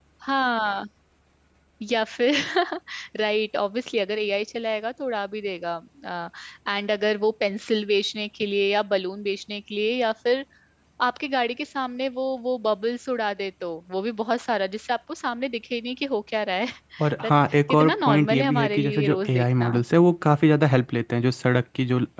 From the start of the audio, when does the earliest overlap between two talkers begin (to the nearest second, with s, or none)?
17 s